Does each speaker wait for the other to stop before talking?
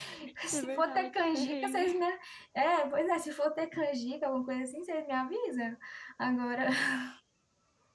No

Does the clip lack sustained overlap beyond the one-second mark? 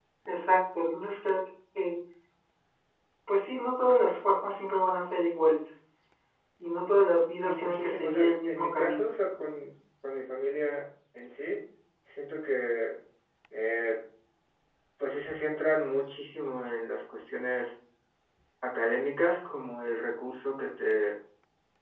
No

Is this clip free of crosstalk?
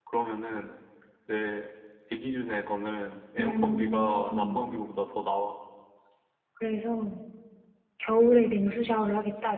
No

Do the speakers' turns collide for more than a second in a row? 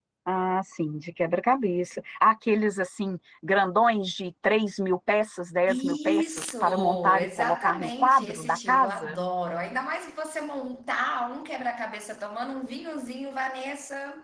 Yes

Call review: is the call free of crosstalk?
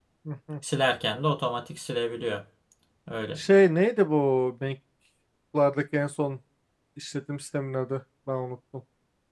Yes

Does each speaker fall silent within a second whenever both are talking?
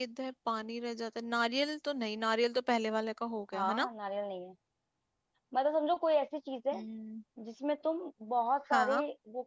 Yes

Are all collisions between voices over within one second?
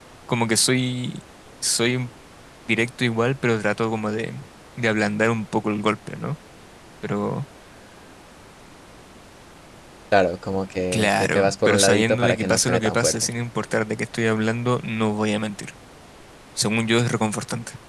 No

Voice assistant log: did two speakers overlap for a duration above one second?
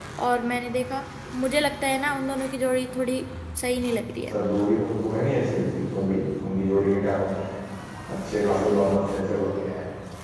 No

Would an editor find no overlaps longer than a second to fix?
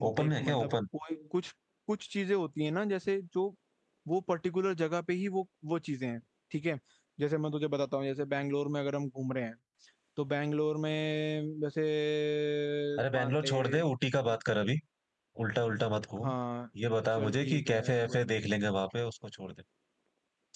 No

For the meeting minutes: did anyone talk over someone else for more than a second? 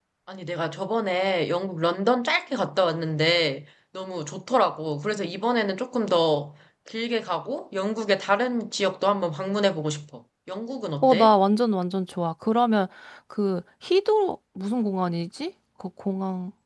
No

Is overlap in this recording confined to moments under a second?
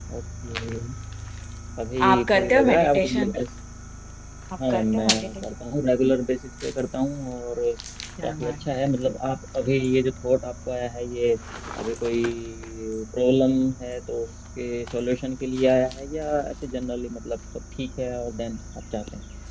No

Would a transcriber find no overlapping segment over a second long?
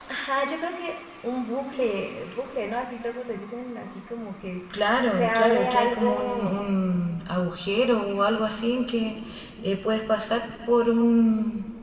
No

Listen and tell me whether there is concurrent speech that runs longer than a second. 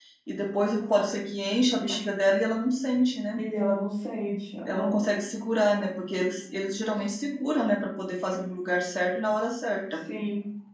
No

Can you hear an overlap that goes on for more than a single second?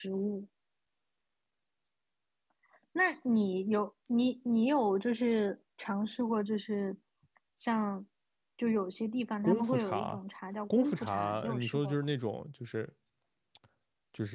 Yes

